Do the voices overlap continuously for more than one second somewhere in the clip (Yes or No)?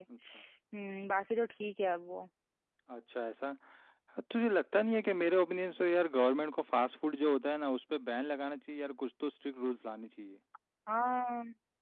No